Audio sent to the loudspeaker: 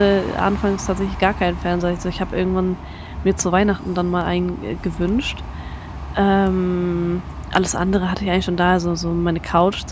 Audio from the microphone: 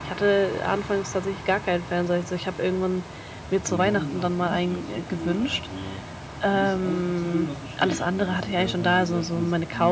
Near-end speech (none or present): present